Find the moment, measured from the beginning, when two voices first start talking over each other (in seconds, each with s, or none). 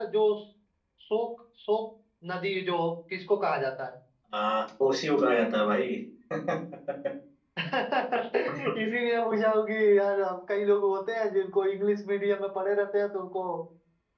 none